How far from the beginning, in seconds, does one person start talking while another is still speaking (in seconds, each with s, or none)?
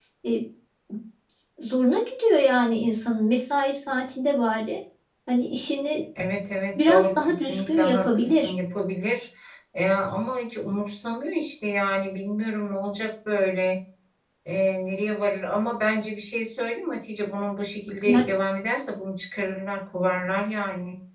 6.9 s